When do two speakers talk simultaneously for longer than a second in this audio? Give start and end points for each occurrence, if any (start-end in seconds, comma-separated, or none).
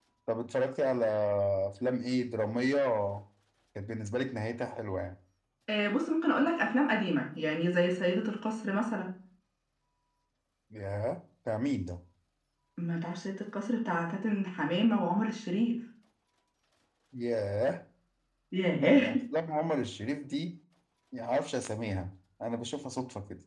none